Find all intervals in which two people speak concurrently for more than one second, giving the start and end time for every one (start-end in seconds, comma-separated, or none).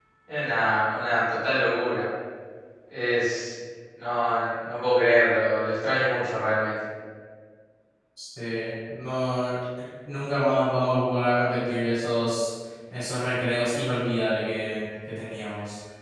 none